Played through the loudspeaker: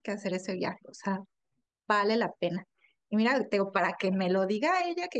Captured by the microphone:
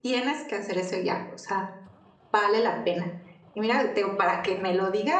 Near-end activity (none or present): none